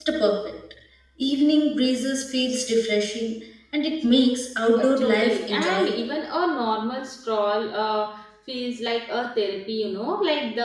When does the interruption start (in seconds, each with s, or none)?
4.8 s